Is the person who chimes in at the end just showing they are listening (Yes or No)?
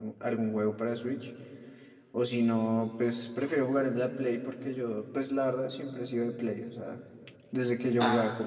Yes